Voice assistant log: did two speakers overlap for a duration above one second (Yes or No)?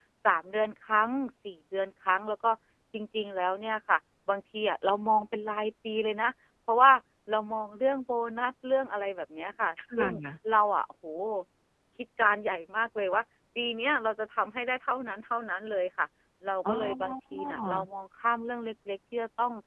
Yes